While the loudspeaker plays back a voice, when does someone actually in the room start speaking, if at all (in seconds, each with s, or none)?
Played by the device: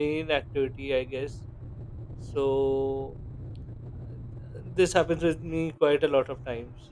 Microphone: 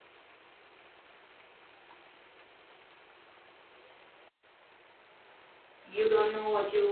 5.8 s